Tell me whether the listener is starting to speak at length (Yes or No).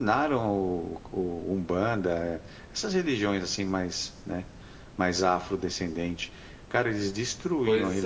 No